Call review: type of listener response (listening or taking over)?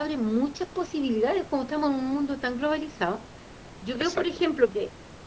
listening